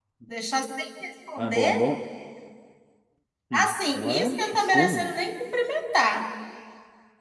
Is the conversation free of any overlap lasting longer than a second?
No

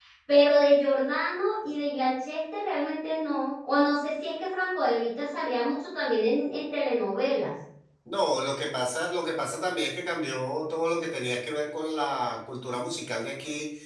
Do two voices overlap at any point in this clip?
No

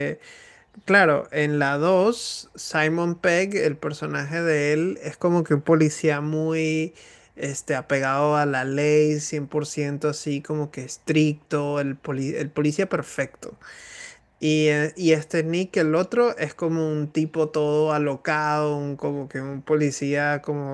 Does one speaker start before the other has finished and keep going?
No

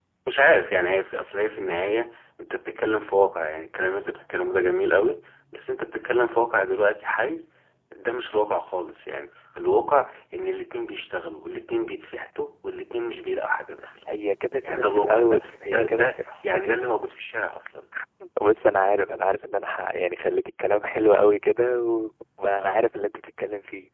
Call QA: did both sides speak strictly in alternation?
No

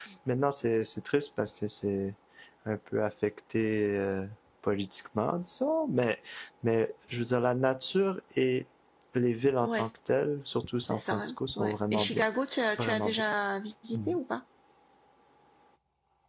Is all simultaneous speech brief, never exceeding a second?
No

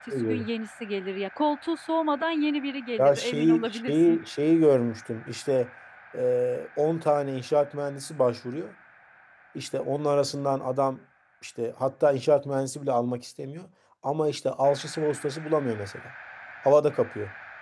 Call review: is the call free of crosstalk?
No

